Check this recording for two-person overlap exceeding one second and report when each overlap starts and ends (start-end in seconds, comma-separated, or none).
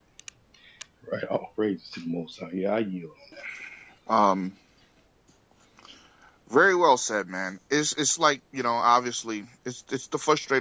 none